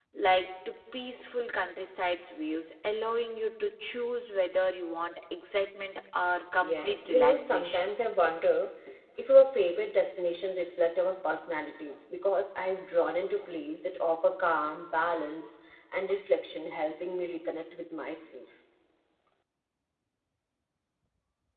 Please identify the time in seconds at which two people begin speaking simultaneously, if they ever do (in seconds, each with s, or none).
6.6 s